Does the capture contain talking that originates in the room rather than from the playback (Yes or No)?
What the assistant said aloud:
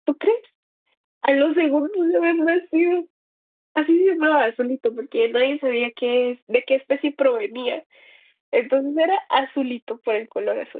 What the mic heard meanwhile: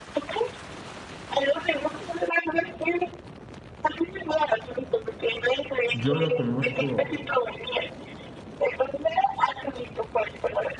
Yes